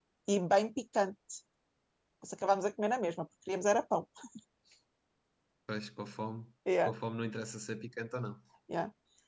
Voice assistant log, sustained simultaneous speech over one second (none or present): none